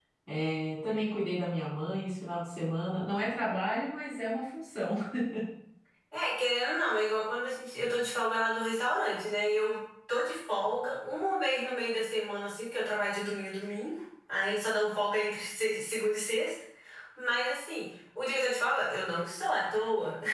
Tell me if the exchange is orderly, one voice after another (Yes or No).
Yes